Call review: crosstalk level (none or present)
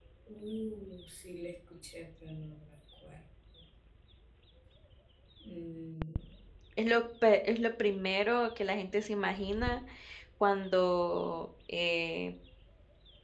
none